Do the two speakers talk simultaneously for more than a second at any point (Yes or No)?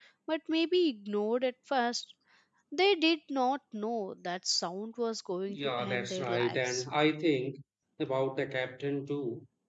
Yes